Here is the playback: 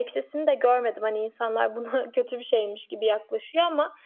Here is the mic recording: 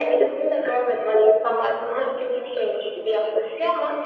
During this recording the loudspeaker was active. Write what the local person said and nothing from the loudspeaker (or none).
none